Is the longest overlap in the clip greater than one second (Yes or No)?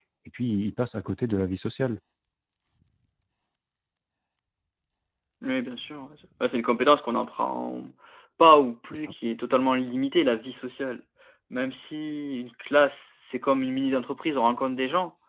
No